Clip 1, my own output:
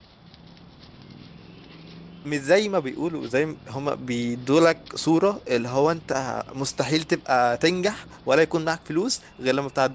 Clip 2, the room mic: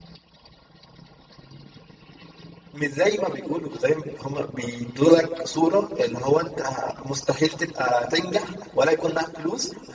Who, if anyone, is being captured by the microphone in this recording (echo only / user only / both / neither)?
echo only